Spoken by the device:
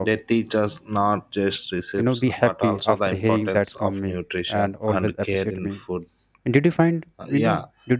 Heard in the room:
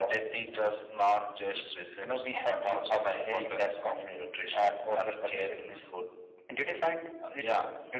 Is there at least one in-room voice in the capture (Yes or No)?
No